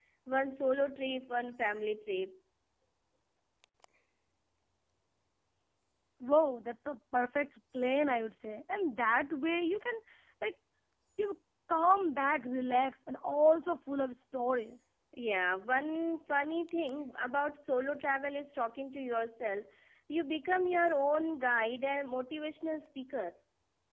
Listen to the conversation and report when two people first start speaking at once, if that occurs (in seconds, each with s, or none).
none